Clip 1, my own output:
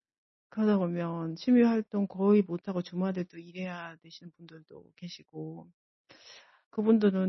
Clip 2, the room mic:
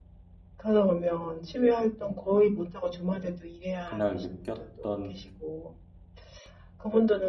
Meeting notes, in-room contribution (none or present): present